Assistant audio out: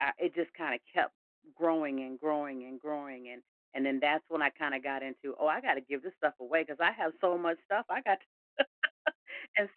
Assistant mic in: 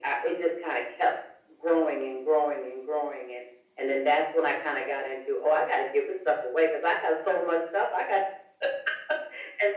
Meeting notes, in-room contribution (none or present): none